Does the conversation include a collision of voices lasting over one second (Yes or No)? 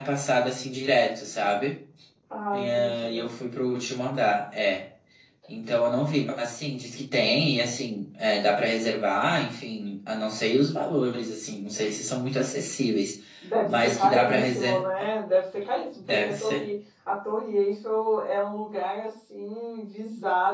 Yes